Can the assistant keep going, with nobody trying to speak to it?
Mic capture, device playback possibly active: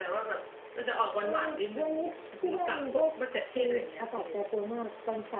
Yes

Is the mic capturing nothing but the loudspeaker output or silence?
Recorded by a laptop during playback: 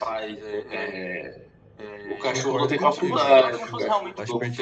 No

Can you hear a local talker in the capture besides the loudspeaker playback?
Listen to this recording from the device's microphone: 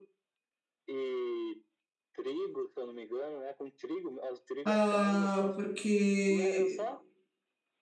Yes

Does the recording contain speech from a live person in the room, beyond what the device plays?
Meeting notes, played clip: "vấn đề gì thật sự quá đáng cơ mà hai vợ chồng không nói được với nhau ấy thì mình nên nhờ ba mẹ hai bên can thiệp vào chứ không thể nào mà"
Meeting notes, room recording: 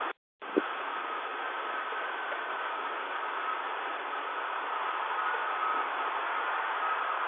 No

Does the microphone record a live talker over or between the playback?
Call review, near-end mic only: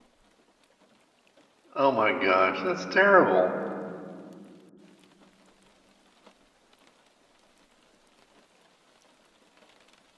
Yes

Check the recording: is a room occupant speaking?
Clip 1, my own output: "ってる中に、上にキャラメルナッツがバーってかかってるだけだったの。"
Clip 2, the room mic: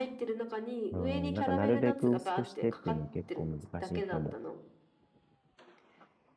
Yes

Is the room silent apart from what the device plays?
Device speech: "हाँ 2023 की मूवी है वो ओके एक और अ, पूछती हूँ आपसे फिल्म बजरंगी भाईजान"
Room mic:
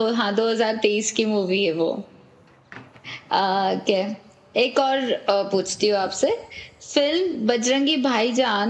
Yes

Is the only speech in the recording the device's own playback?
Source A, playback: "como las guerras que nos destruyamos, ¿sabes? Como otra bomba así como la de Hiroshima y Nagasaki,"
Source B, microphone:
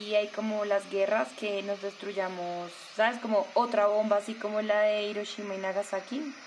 Yes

